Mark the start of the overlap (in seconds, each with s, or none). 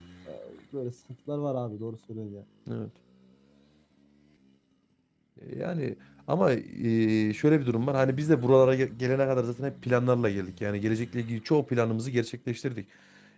none